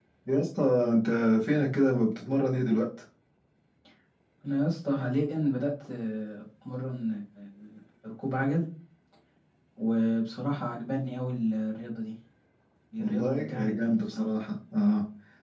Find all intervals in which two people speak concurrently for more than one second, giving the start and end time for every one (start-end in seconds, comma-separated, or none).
13.0-14.3